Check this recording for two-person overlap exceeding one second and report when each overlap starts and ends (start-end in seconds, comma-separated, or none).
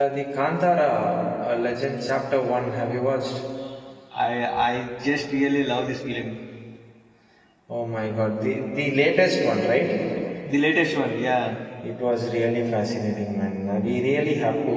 none